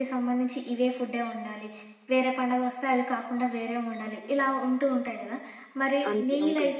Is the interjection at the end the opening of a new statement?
No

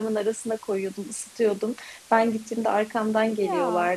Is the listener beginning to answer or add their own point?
No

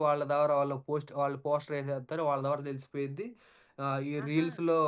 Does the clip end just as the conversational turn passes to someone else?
No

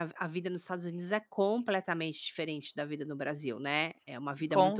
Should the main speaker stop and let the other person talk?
No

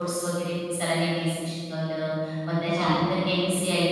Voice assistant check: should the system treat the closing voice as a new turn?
No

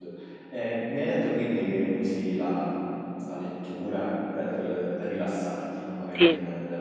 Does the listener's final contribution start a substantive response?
No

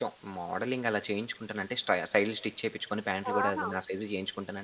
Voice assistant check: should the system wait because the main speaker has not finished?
Yes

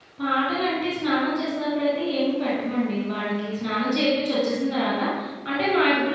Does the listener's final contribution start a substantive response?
Yes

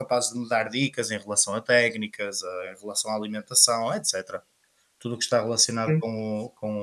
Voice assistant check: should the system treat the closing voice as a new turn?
No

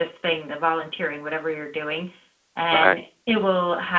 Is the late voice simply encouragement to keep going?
Yes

